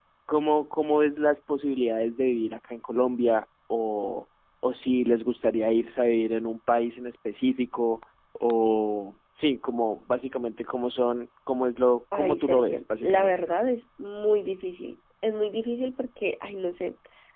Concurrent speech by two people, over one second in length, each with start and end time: 12.1-13.4

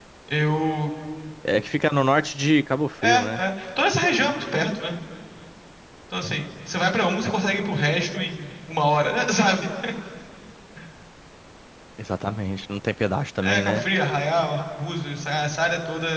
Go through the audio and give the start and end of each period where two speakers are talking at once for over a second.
none

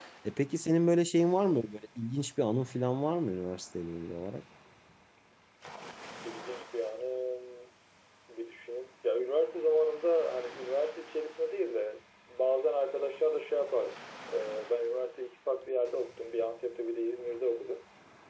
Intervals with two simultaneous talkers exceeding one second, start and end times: none

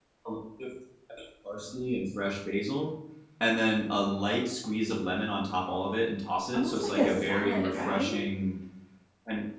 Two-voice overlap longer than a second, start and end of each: 6.5-8.2

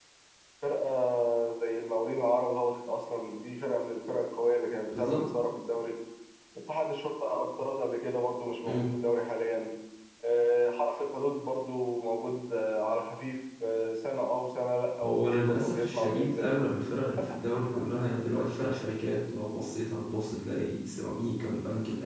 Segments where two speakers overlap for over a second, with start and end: 15.0-16.5

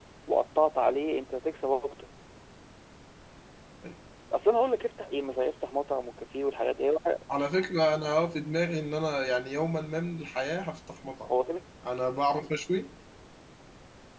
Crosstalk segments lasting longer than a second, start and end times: none

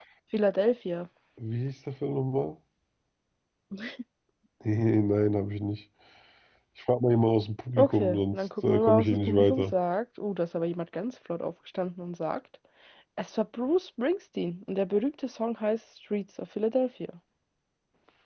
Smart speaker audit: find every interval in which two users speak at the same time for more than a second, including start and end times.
7.8-9.7

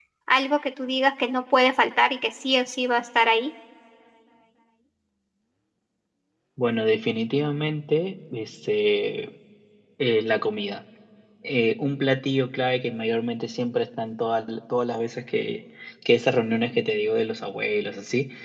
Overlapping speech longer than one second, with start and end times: none

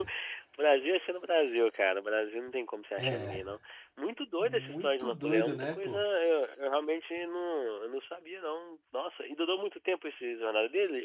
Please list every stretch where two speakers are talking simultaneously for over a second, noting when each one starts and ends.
4.4-6.0

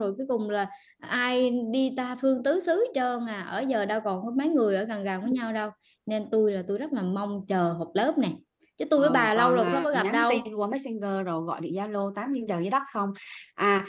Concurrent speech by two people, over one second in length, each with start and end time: 9.0-10.4

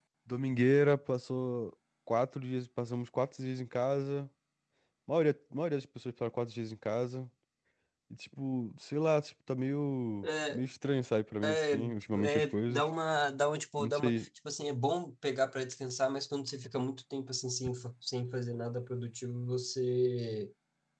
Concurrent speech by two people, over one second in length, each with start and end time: 11.4-12.9

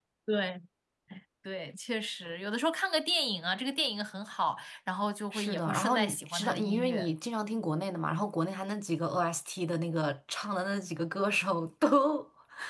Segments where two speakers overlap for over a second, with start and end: 5.3-7.1

